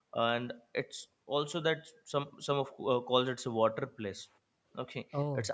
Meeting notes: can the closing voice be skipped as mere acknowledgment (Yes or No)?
Yes